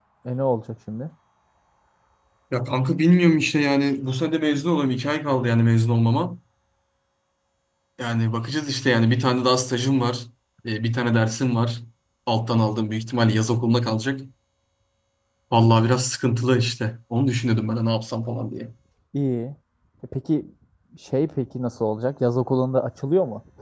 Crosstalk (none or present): none